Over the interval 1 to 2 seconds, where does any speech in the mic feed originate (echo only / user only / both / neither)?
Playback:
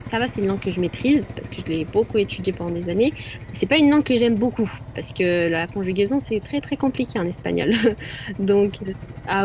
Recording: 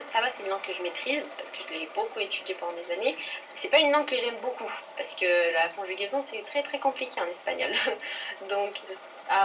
echo only